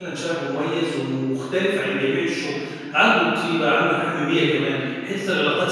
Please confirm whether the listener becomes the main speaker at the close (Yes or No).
No